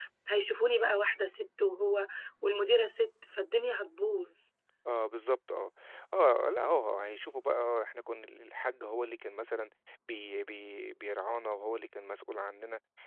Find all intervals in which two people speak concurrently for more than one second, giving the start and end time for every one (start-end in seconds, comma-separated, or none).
none